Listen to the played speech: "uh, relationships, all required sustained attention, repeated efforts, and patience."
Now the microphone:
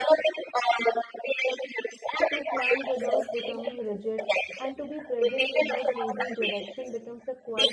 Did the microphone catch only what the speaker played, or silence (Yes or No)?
No